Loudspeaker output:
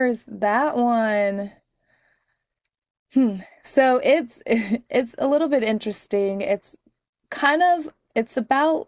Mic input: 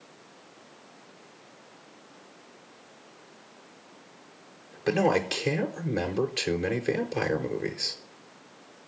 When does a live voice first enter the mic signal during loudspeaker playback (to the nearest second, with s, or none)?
5 s